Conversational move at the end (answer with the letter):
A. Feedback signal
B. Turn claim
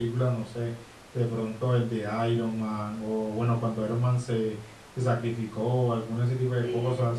A